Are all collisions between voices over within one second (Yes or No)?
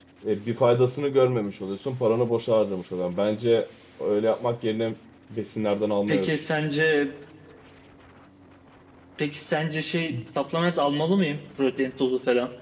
Yes